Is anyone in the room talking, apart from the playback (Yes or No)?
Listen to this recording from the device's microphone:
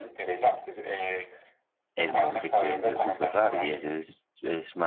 Yes